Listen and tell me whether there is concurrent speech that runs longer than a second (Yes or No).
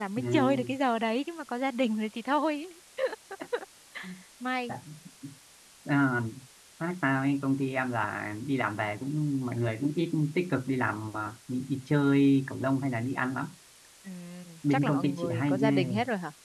Yes